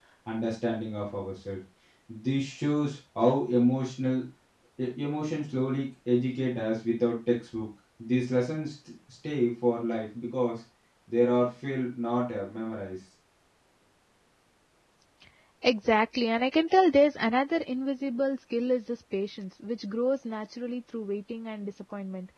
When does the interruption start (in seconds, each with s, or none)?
none